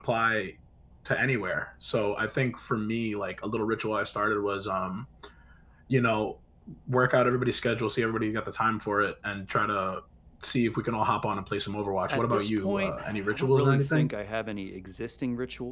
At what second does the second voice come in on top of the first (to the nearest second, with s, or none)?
12 s